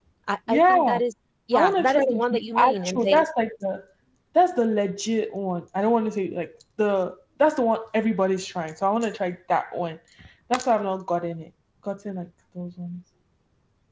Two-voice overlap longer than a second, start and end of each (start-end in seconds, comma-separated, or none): 1.5-3.2